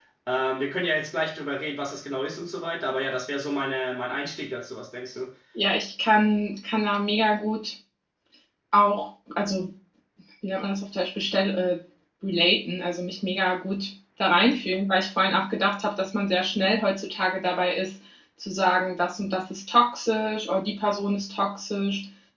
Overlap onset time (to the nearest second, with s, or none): none